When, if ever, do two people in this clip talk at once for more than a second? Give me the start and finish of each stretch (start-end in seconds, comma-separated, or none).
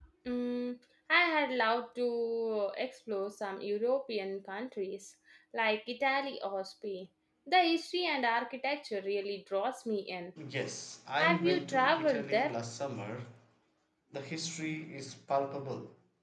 11.2-12.6